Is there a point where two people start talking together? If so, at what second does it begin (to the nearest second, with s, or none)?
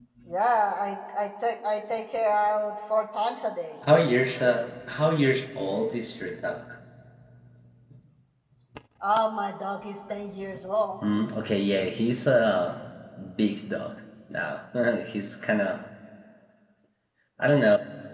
none